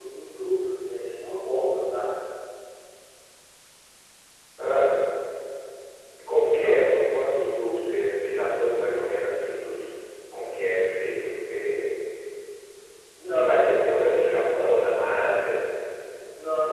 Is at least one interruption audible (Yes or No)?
Yes